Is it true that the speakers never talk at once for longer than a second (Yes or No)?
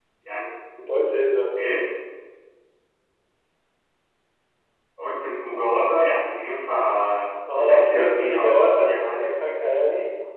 No